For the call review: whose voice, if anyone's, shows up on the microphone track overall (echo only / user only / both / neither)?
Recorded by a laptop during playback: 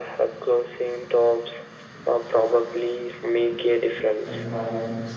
both